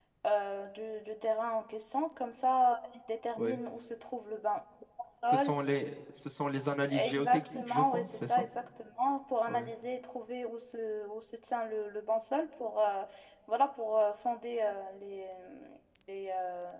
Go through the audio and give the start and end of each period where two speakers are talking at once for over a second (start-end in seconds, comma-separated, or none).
7.0-8.4